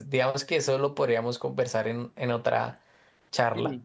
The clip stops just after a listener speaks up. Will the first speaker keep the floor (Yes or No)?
No